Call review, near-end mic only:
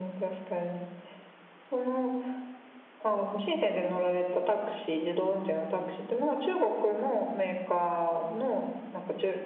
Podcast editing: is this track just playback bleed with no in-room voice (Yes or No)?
Yes